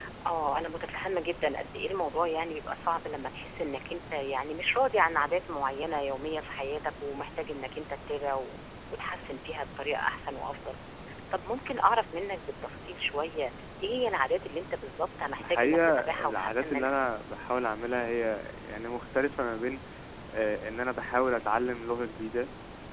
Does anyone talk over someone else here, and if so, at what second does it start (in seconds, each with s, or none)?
15.4 s